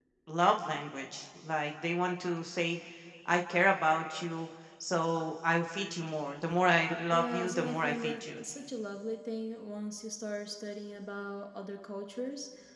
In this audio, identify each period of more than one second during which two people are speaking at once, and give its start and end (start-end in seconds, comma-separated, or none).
7.1-8.4